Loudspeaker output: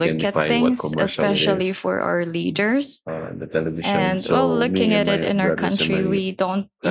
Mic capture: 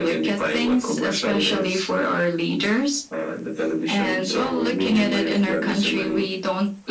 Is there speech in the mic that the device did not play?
No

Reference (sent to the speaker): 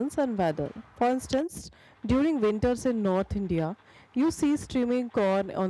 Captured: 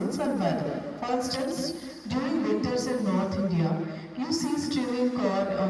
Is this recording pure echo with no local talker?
Yes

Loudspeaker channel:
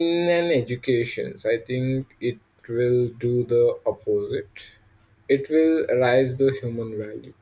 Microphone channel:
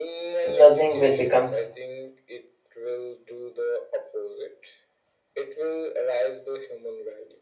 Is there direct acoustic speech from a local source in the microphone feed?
Yes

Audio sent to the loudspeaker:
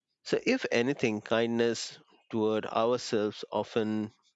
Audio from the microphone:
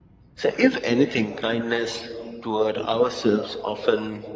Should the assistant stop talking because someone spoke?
No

